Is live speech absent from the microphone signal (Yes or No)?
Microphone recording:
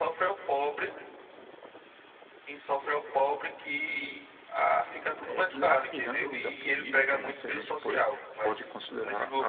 No